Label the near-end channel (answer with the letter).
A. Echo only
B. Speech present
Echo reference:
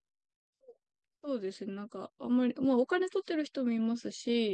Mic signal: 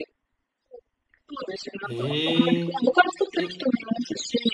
B